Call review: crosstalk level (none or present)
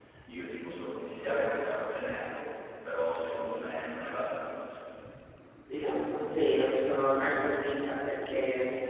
none